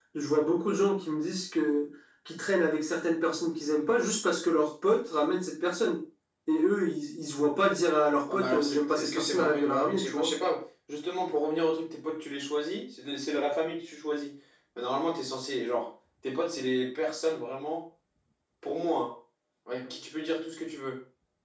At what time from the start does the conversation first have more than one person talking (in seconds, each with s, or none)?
8.3 s